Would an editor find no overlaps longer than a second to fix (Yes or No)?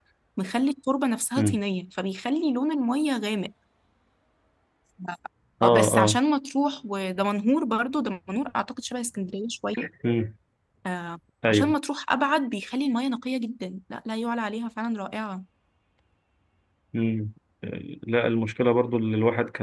Yes